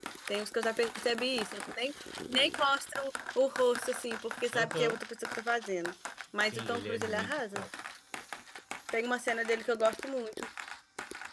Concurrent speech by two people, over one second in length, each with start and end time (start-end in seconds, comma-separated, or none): 6.4-7.6